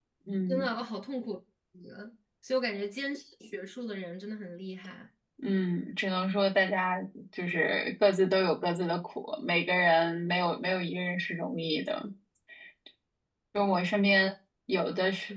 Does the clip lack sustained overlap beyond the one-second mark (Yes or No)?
Yes